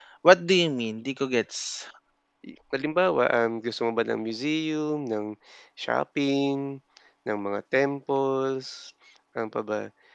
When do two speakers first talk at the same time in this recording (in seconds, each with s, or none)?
none